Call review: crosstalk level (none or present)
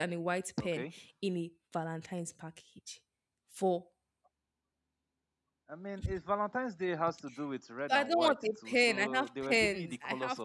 present